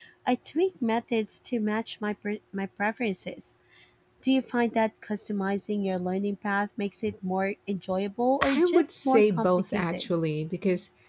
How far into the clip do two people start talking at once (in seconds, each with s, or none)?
8.4 s